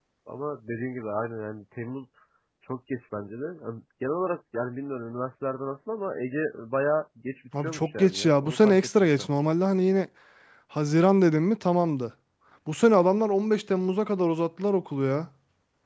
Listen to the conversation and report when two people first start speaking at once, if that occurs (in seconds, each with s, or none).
7.5 s